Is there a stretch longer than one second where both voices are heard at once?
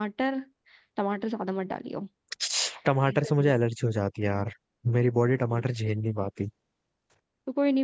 No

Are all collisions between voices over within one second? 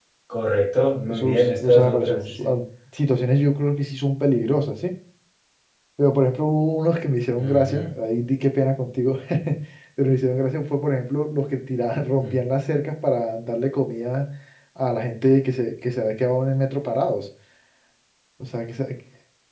No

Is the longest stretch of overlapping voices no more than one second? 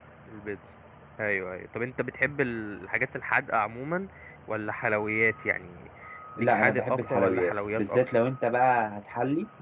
No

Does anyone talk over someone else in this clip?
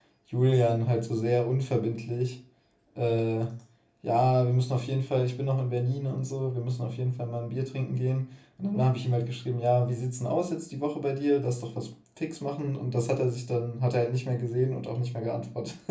No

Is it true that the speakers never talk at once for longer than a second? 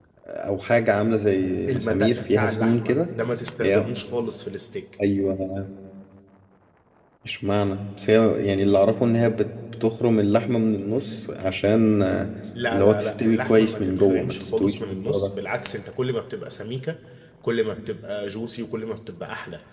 No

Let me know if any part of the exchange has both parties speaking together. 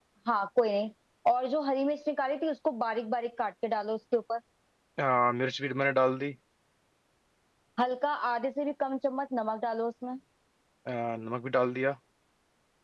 No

